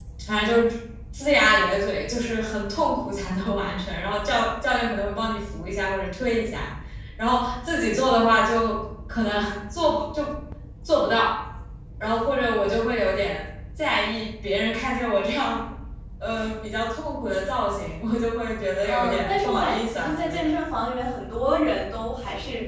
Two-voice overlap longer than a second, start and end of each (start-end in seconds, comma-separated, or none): 18.9-20.5